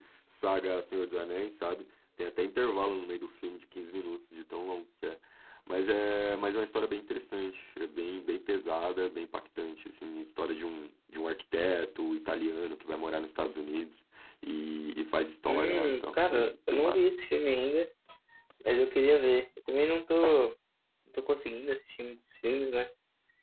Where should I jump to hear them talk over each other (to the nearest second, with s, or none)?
15 s